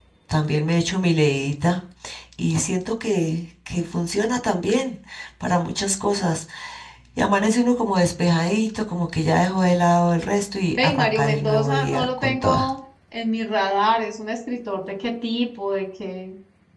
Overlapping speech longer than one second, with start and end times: 10.8-12.7

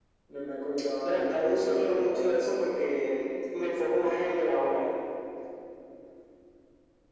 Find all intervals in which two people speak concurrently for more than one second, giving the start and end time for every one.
1.0-2.6

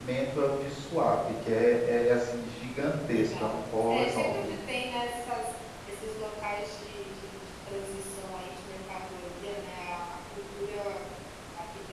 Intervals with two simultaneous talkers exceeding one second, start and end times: 3.1-4.5

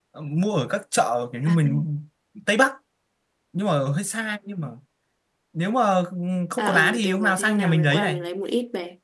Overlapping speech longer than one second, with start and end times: 6.6-8.2

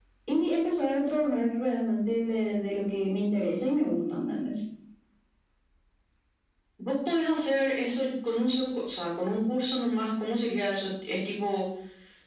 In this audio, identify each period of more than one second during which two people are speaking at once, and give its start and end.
none

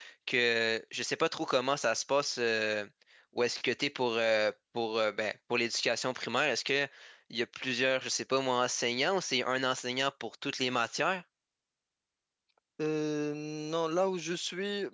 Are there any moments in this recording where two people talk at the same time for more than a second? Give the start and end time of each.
none

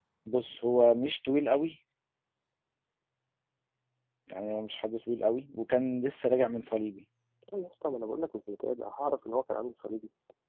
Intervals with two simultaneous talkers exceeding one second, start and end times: none

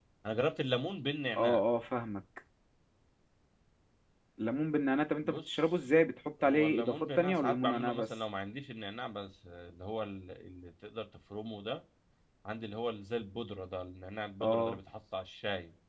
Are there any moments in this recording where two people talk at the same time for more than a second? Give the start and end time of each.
6.4-8.0

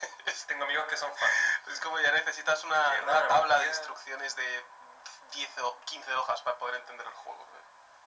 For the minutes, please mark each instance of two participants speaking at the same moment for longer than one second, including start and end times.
2.7-4.0

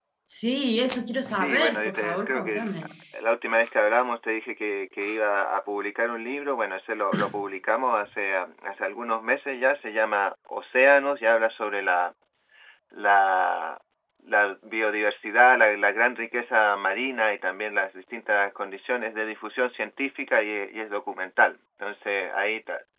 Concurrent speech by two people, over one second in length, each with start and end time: 1.3-2.7

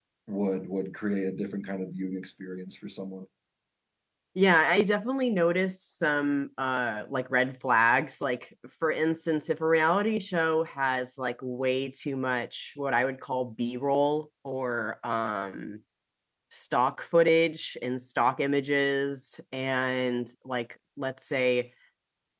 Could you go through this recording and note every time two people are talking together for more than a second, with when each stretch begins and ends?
none

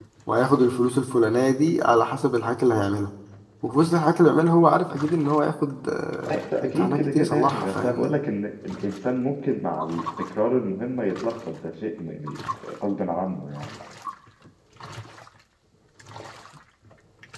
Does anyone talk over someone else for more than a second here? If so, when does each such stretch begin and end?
6.3-8.1

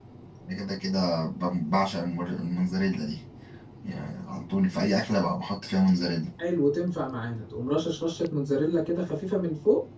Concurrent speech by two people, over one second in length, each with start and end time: none

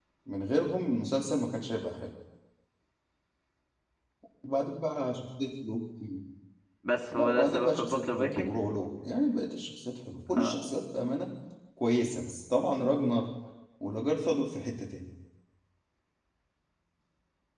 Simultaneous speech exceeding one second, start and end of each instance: 7.1-8.5

